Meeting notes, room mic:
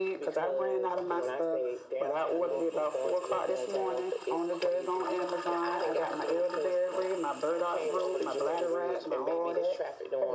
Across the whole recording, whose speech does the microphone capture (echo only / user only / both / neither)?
echo only